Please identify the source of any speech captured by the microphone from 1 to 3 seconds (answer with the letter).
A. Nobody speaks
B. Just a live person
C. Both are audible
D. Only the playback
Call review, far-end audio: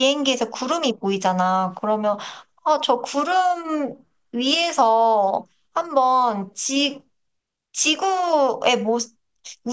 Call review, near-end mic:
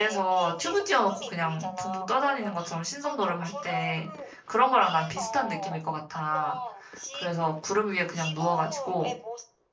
C